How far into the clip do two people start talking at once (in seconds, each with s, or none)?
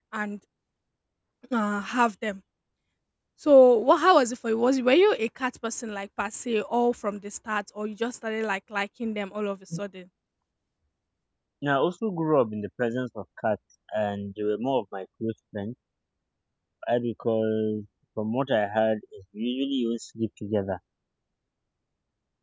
none